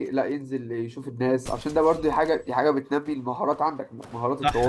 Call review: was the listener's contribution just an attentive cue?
No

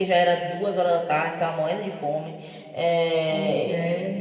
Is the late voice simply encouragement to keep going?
Yes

